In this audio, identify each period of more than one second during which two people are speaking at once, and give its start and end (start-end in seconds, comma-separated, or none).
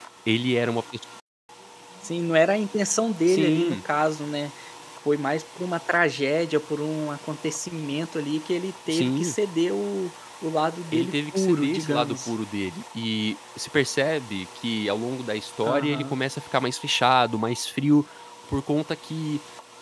10.9-12.3